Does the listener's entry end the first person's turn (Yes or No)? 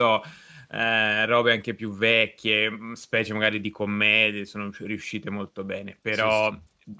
No